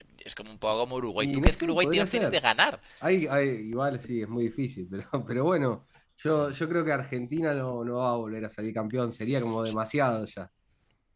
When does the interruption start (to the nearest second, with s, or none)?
1 s